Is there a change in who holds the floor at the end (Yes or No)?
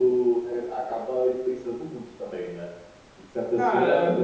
No